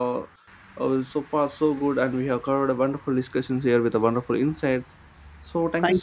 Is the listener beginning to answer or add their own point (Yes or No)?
No